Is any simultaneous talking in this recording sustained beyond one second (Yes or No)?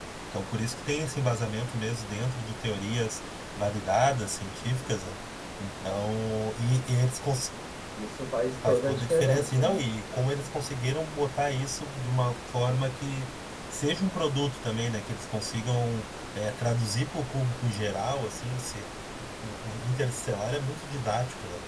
Yes